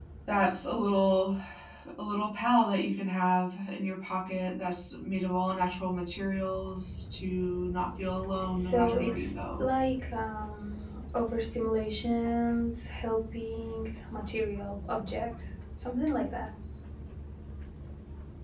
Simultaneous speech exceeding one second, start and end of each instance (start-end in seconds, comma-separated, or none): 8.4-9.7